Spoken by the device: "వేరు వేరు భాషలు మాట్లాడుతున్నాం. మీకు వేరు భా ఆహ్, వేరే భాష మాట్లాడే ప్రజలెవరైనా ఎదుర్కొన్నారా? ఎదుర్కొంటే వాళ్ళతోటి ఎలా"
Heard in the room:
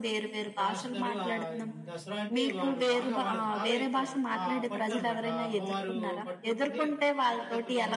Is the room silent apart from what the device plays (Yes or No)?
No